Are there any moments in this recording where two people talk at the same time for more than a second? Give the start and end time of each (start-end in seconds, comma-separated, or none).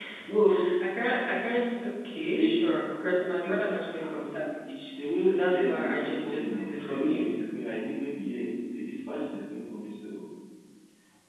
5.2-7.3